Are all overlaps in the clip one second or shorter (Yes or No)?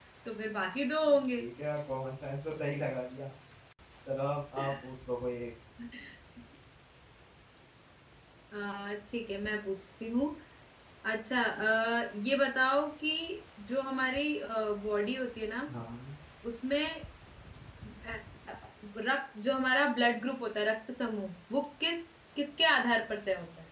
Yes